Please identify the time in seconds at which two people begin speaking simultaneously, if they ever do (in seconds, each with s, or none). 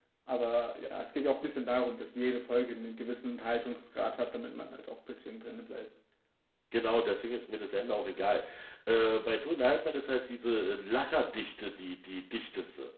none